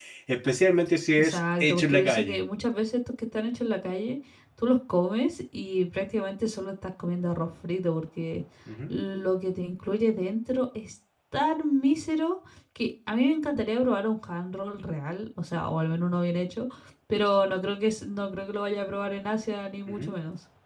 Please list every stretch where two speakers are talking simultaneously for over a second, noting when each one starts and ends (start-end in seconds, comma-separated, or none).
1.2-2.4